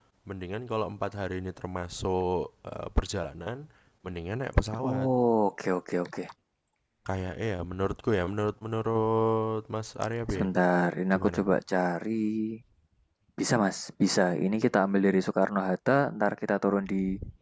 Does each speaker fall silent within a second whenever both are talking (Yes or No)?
Yes